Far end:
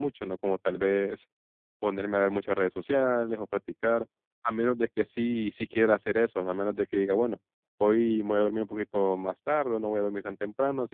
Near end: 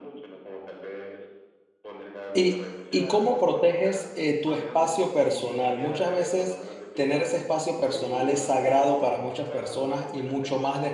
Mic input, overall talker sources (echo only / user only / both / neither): both